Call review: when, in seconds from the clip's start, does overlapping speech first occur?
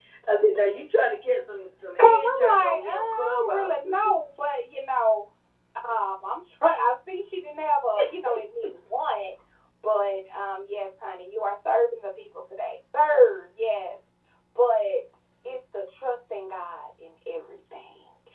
2.0 s

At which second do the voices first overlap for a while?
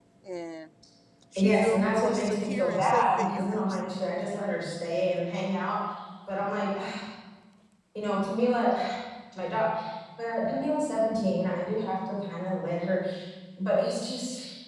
1.4 s

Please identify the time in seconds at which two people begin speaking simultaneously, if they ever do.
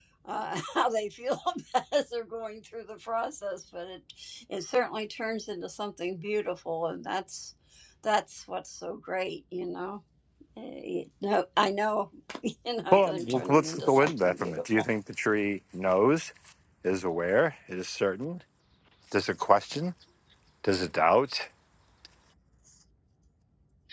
12.9 s

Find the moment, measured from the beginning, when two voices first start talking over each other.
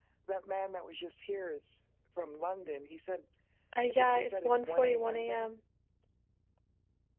3.9 s

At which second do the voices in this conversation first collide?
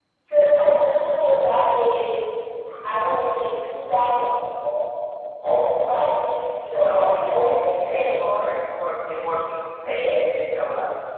6.8 s

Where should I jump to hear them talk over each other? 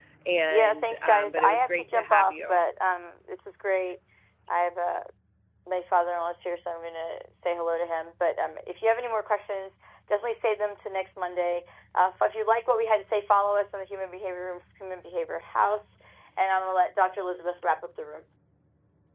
0.5 s

